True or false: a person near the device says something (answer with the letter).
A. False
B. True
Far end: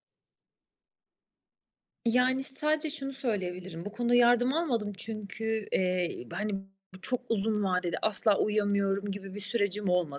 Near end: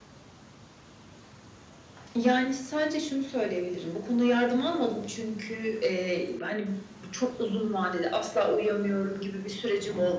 A